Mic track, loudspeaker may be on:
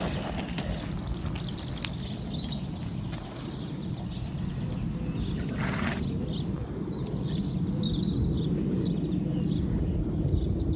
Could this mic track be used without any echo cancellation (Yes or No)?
Yes